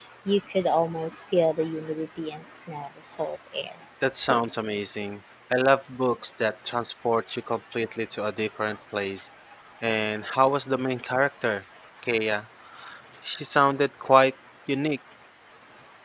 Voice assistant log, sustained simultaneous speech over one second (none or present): none